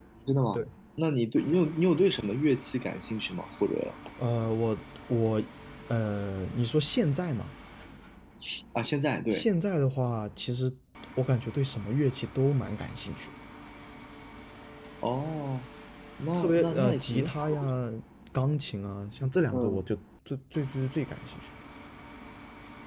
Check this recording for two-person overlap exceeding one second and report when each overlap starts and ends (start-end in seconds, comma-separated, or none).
16.3-17.7